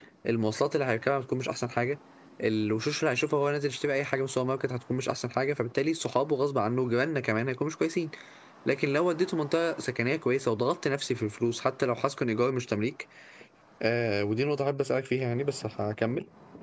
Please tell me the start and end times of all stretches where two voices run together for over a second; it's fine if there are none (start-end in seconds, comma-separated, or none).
none